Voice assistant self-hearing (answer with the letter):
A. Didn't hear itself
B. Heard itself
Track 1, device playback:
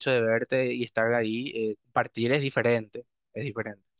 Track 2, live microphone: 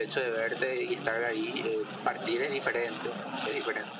B